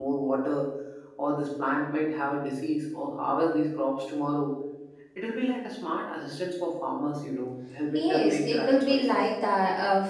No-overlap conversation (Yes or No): No